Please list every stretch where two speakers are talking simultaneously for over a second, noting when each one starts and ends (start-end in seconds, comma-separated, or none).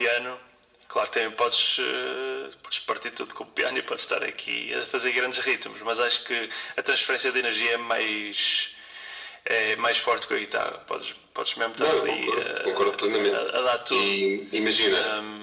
11.8-13.5